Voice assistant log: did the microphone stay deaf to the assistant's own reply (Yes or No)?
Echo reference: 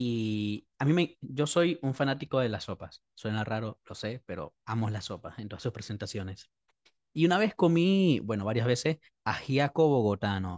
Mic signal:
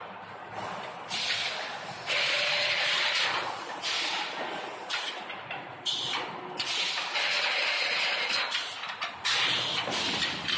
Yes